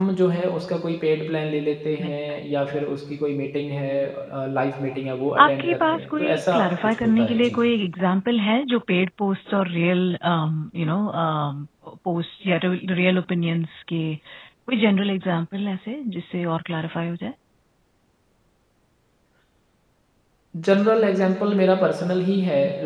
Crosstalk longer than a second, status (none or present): present